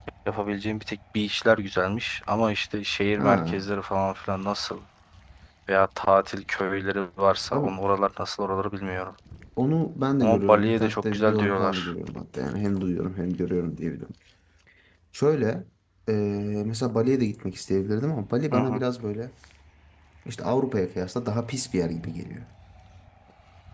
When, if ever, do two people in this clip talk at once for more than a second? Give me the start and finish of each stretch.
10.2-11.9

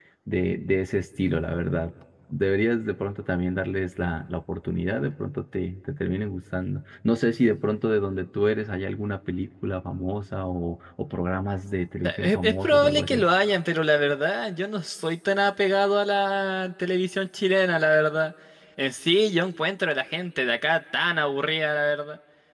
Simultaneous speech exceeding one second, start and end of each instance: 12.0-13.2

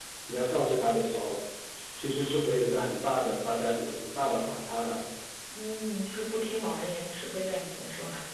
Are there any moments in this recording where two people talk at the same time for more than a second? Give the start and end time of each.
none

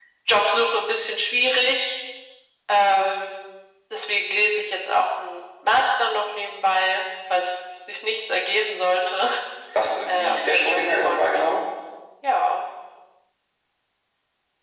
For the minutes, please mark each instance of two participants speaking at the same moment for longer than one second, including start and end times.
10.1-11.3

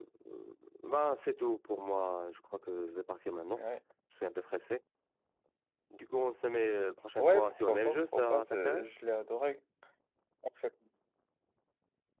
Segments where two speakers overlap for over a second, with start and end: 7.2-9.0

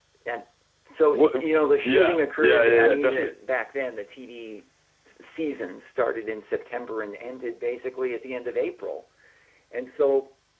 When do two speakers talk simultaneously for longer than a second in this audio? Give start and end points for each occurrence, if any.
1.8-3.3

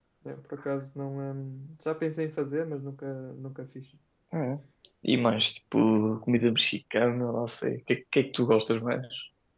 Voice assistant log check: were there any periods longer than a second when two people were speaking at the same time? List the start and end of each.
none

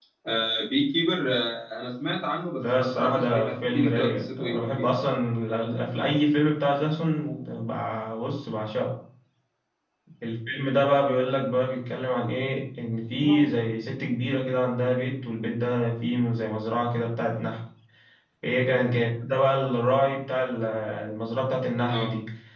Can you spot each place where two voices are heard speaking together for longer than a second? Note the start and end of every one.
2.6-5.1

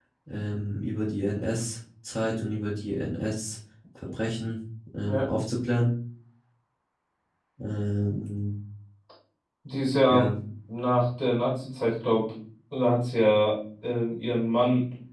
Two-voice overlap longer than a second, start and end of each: none

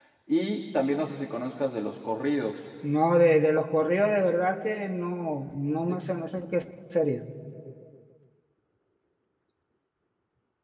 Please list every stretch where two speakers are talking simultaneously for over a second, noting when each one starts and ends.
none

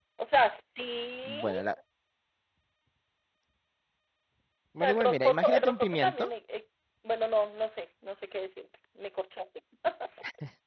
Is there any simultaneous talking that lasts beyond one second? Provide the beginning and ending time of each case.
4.8-6.3

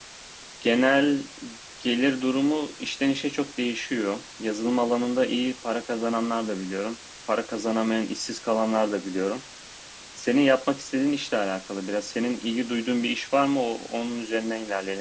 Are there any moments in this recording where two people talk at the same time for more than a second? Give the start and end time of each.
none

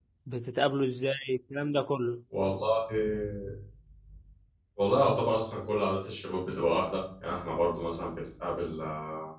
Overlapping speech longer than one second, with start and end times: none

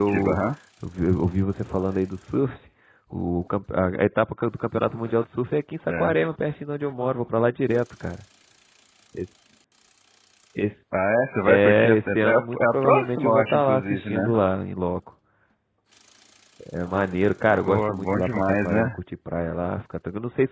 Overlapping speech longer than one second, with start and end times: 11.4-14.3, 17.6-19.0

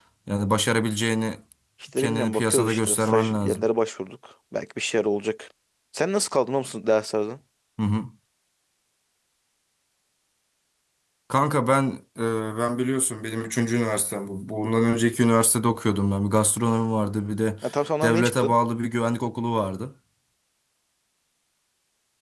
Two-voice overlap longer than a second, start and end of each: 2.0-3.6

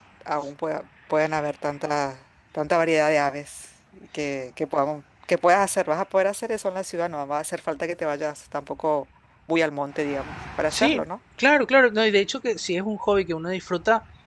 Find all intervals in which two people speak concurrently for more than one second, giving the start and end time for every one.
none

